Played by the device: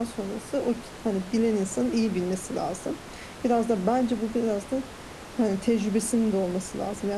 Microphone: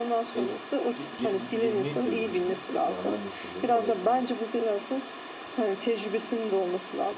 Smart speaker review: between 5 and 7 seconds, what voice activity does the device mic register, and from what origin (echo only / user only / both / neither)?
echo only